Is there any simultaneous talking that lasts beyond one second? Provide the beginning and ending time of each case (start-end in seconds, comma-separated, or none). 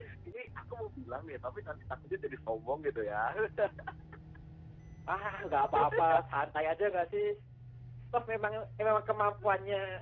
none